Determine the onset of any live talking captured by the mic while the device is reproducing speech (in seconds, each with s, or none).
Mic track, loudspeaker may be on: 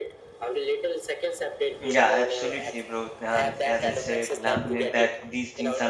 1.8 s